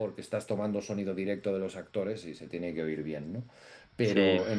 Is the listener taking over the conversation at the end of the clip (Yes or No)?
No